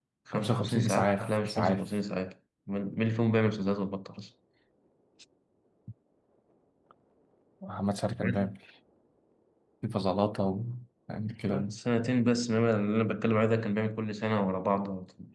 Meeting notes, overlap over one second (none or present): present